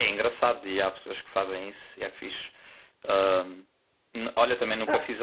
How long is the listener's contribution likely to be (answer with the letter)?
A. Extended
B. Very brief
B